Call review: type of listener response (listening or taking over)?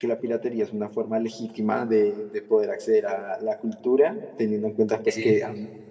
listening